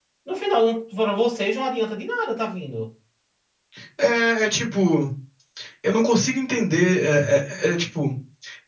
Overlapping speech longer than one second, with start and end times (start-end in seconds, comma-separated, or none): none